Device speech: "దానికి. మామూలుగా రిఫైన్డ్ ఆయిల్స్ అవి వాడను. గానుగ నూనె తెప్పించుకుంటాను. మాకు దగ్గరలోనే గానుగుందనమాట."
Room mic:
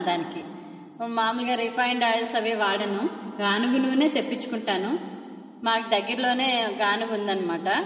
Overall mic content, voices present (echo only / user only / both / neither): echo only